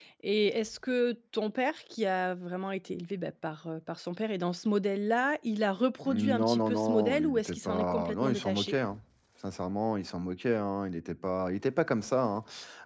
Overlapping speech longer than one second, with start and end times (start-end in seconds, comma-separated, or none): 6.0-8.7